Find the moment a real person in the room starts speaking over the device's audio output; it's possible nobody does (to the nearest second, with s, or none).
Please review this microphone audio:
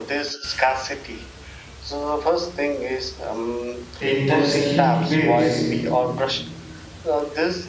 4 s